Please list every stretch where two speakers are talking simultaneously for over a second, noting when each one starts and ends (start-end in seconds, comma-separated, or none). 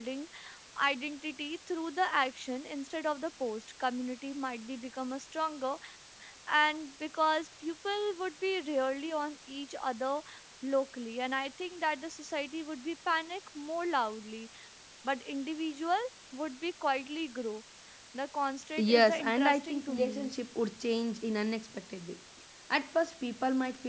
18.9-20.3